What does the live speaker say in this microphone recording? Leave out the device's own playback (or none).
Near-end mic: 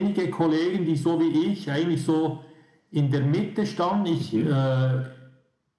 Mhm.